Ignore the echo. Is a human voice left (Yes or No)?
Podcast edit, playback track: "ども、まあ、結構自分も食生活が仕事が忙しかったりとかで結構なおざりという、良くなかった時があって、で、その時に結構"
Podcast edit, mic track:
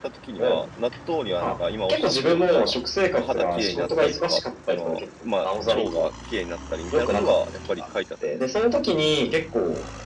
Yes